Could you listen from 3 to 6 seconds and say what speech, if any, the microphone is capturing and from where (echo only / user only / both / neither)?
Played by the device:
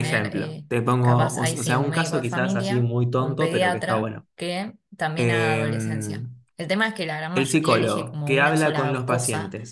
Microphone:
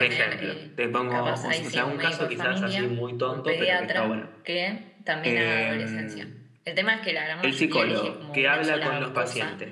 echo only